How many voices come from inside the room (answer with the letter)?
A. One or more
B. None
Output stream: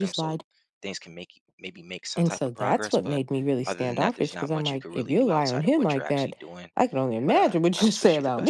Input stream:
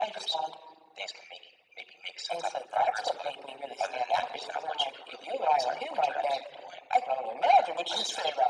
B